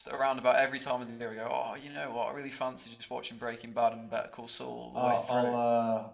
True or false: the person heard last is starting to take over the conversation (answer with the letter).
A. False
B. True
B